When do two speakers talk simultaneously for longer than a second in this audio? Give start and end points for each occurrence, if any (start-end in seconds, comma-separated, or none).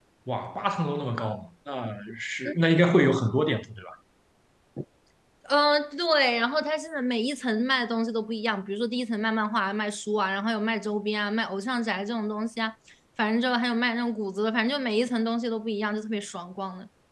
none